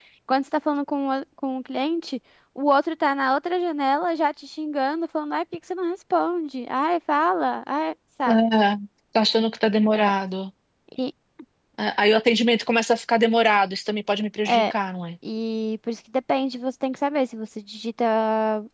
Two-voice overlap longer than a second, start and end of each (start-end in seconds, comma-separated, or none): none